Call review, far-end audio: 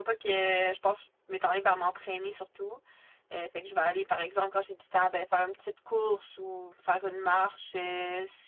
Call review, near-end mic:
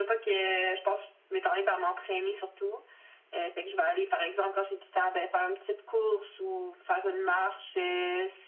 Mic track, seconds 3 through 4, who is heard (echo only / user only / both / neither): echo only